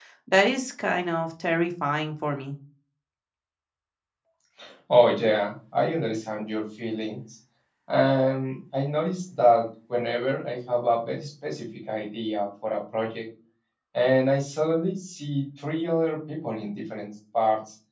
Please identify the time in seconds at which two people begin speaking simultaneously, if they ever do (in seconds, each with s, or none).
none